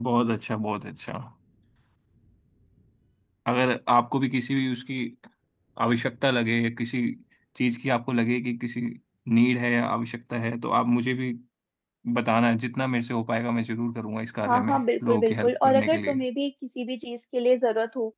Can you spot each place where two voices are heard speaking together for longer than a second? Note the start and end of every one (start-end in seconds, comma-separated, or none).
14.5-16.2